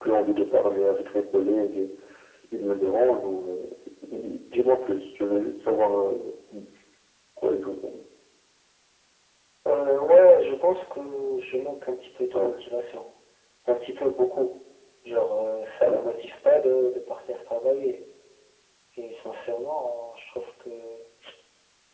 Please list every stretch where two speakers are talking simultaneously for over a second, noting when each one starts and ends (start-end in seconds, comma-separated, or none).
none